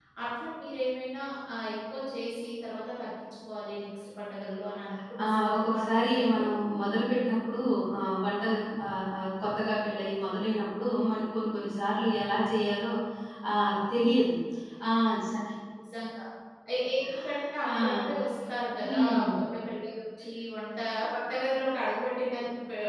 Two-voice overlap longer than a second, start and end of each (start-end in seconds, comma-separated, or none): 5.2-6.4